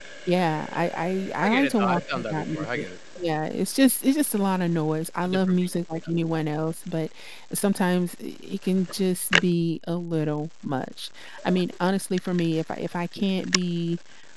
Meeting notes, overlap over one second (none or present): present